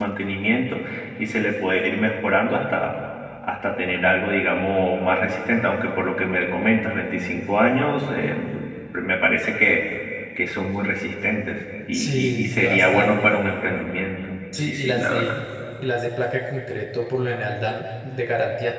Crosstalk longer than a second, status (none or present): present